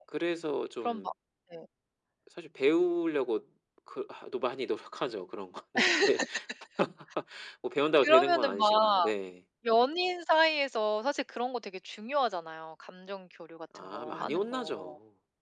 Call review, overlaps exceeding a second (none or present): present